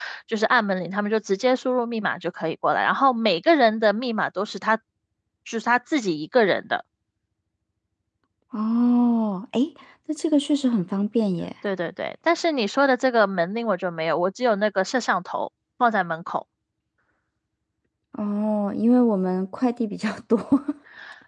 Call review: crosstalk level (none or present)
none